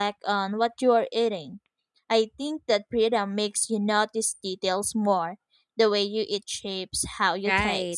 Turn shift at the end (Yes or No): Yes